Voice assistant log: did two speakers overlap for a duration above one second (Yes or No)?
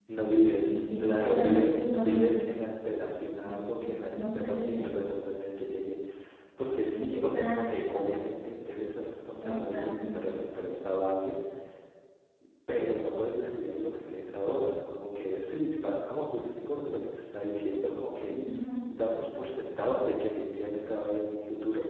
Yes